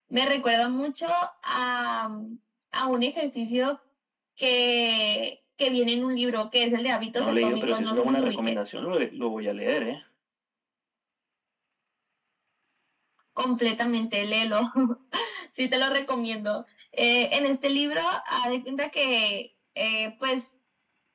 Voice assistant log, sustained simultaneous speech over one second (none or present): present